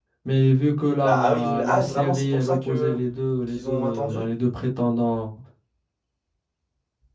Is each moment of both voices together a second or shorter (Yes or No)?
No